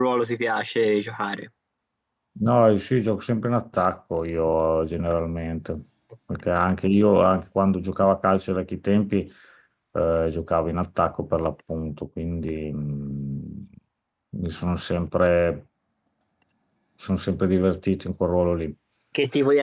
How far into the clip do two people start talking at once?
none

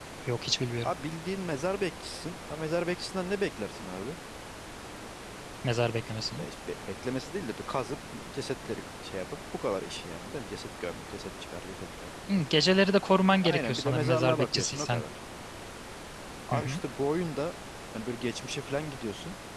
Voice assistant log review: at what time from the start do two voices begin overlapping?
13.4 s

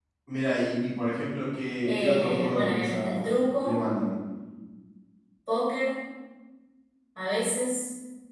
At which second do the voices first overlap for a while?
1.9 s

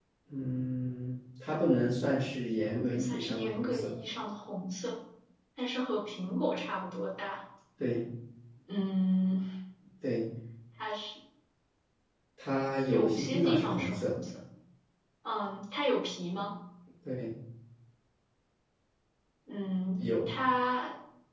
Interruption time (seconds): 2.7 s

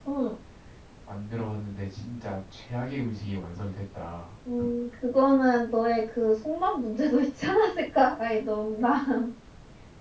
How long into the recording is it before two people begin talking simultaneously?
none

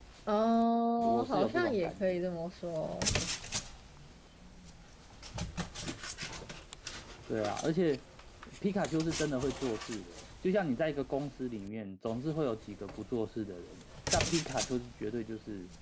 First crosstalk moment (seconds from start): 1.0 s

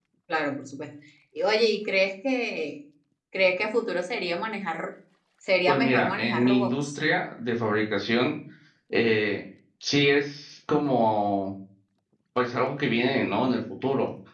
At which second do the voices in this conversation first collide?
5.7 s

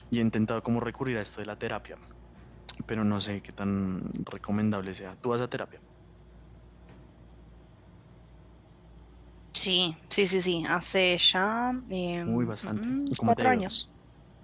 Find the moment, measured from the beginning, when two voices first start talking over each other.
12.3 s

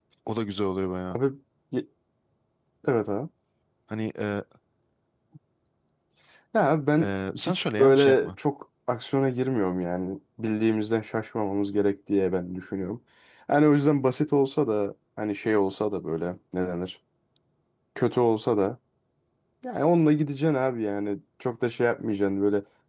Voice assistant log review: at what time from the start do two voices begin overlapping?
7.0 s

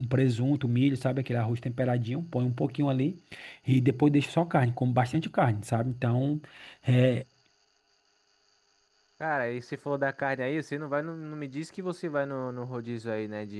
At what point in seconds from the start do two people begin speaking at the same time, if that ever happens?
none

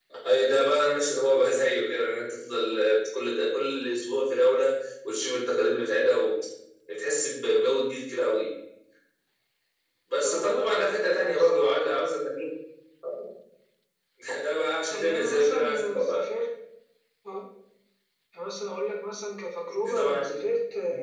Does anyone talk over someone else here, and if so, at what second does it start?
10.2 s

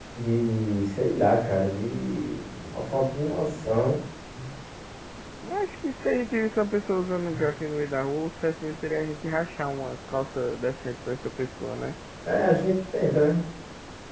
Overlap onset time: none

